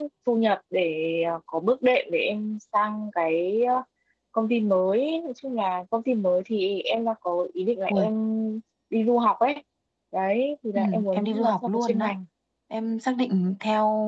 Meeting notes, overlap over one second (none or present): present